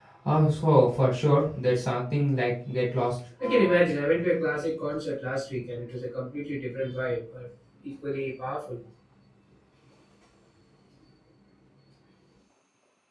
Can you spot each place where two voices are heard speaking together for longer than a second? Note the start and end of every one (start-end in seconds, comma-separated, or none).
none